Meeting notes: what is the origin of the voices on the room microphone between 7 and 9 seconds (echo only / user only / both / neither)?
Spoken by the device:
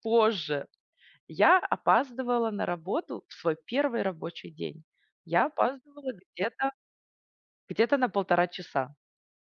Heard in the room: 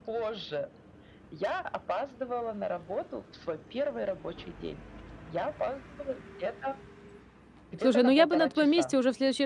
both